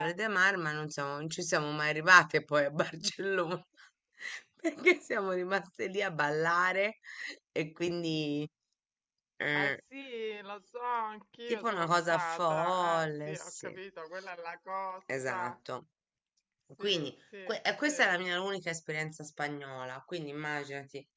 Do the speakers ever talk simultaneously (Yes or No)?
Yes